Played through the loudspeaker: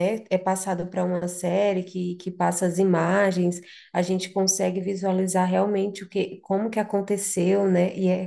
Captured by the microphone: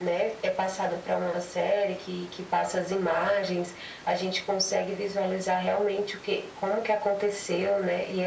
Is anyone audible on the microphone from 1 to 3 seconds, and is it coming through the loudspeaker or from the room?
echo only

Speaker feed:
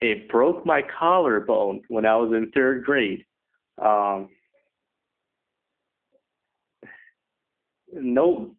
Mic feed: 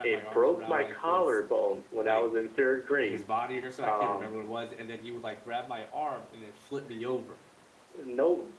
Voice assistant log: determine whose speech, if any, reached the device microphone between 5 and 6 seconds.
user only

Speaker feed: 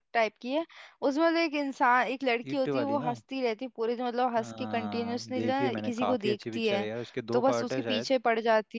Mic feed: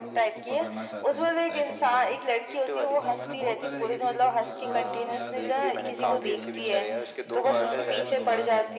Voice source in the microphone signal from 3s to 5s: both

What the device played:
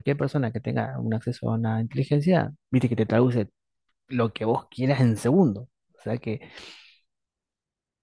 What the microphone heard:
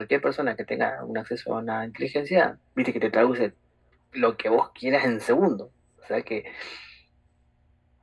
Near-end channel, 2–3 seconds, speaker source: echo only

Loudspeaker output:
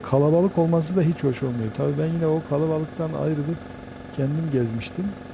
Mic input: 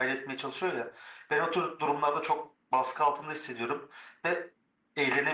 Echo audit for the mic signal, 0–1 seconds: user only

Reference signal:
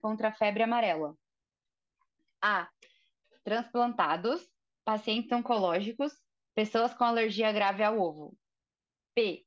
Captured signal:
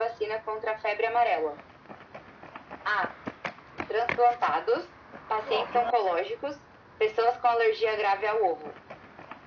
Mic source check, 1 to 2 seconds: echo only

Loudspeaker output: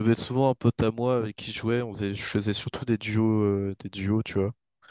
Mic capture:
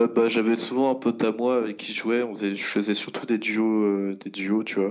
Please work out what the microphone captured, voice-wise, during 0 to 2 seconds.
echo only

